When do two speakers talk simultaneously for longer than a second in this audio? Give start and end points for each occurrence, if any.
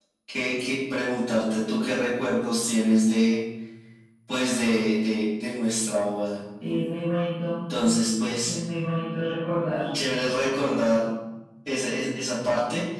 none

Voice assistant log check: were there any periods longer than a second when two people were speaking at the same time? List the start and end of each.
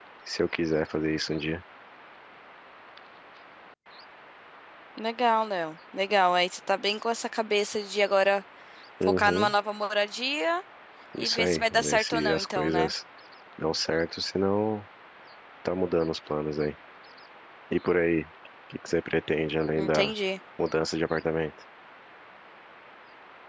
11.2-12.9

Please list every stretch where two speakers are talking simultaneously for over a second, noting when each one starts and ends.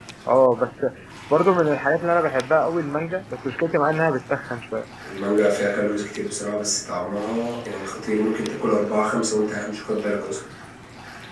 none

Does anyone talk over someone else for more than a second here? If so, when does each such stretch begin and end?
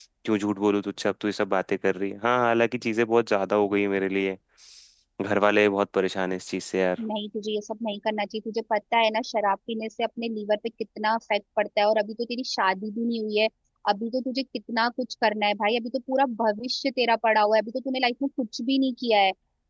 none

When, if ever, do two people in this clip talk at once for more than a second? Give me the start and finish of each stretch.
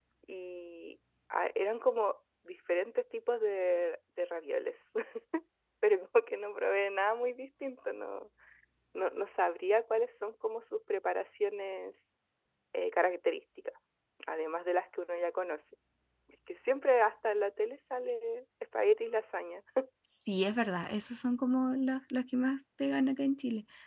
none

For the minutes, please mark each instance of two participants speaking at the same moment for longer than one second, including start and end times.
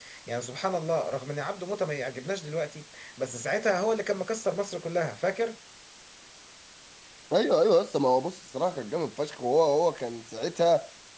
none

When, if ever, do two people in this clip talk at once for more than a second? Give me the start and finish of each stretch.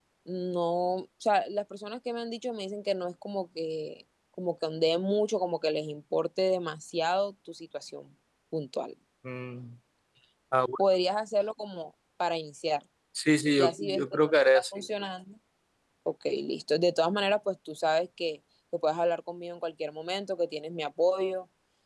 13.6-14.8

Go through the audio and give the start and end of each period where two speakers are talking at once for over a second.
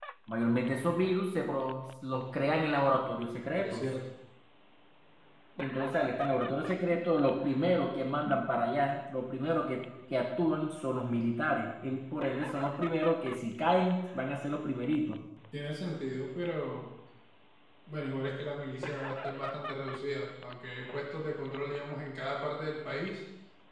none

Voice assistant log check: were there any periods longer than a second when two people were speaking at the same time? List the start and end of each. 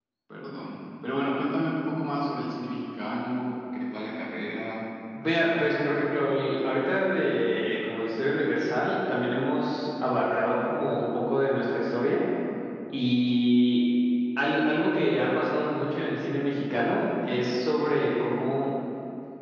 none

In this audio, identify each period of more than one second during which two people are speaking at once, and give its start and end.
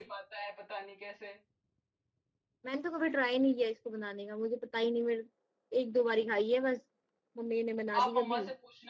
none

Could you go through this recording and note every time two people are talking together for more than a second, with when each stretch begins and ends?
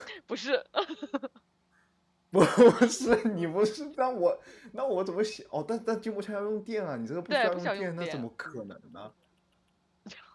7.3-8.6

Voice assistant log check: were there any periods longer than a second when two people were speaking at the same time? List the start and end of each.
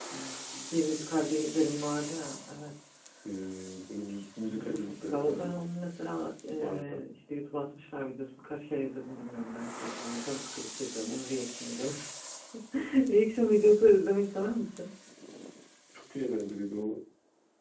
4.5-5.8

